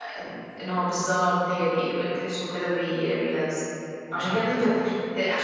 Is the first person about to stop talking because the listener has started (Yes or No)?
No